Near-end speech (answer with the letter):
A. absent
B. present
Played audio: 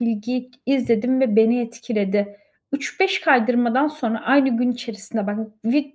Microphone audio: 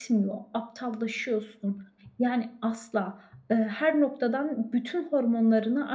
B